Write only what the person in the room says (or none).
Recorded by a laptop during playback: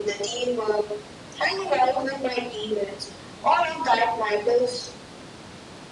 none